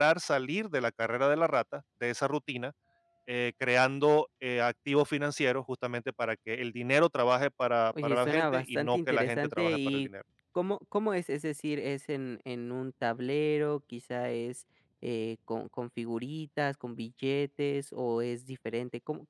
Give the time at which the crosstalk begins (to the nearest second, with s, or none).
8 s